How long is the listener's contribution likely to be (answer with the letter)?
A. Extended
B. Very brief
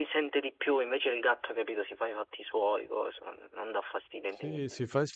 A